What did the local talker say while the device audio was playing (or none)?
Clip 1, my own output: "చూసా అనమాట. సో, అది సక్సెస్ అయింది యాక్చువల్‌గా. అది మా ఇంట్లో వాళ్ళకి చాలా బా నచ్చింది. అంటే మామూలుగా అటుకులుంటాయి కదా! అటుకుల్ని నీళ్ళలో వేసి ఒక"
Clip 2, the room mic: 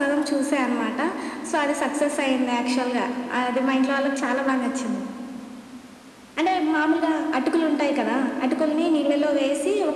none